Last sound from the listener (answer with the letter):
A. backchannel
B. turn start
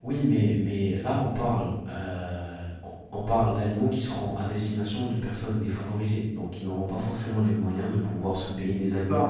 B